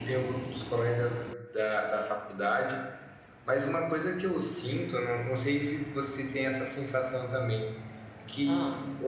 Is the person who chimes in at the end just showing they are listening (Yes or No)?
Yes